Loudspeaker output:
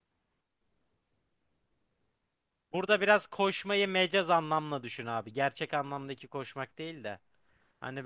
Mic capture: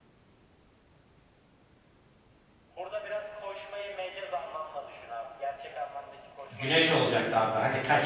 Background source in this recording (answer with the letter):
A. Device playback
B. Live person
A